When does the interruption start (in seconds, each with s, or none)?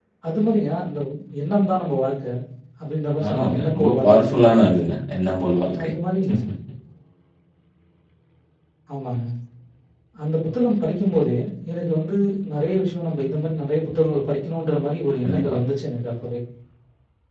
3.3 s